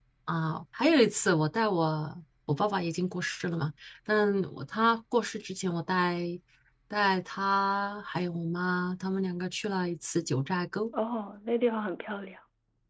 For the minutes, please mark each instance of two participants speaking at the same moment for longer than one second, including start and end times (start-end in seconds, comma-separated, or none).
none